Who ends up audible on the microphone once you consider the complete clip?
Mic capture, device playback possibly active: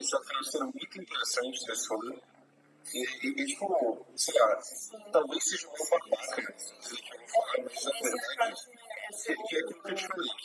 echo only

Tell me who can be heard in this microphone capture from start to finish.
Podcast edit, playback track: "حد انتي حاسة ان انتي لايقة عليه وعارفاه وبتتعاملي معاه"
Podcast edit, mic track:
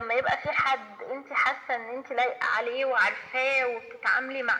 echo only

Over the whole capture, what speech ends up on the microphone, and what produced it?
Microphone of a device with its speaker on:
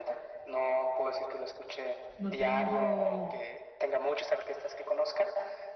both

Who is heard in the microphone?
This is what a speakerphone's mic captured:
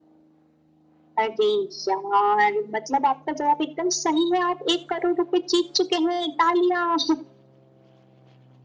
echo only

